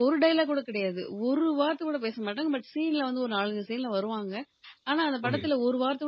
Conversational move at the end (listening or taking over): listening